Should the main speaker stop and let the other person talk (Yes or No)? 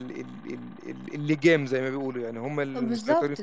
Yes